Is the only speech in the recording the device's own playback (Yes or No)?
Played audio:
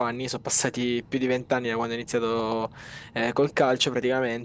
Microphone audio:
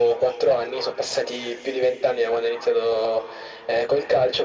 Yes